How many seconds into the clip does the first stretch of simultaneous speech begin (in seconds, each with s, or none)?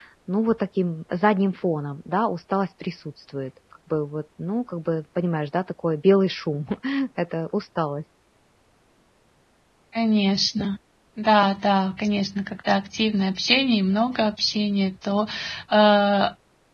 none